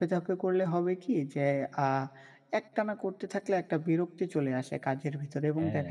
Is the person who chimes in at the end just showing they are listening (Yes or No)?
Yes